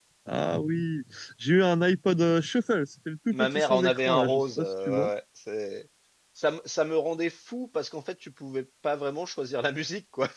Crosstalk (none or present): present